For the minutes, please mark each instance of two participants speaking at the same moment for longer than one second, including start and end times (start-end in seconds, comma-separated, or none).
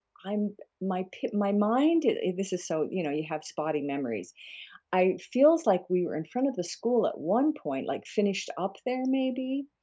none